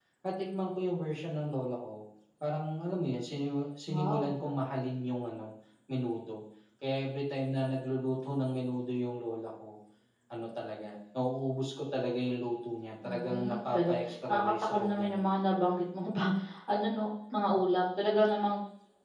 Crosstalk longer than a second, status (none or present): present